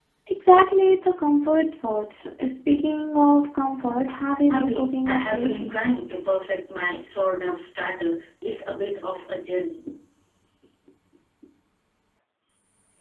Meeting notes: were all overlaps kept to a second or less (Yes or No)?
No